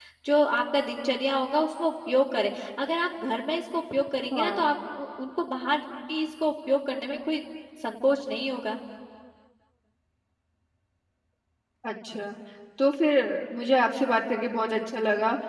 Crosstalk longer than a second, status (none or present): none